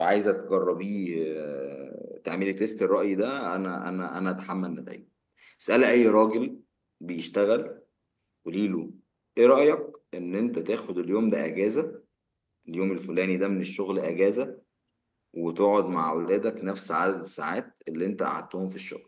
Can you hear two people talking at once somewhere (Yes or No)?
No